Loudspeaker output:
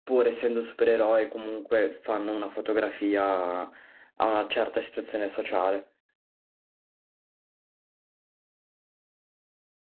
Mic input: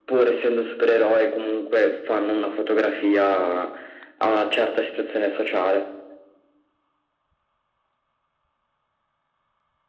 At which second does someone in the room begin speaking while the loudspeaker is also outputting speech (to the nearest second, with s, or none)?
none